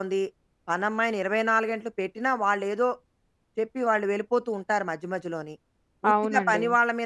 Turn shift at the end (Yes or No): No